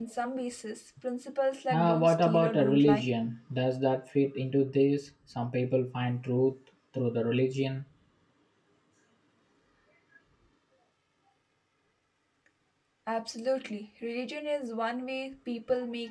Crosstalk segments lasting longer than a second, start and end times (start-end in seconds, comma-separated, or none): 1.7-3.0